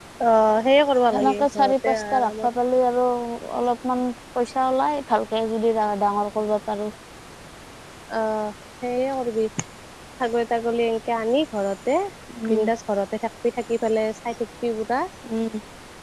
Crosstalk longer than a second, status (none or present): present